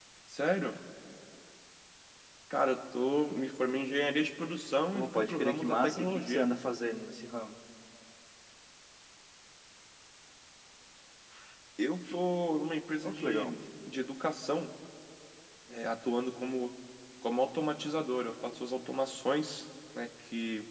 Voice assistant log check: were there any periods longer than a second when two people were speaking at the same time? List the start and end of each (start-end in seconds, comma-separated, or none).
4.9-6.5